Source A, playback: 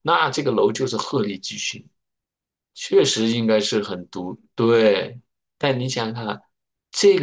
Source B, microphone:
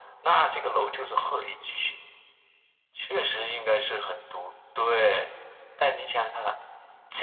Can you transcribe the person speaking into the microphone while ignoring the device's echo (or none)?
none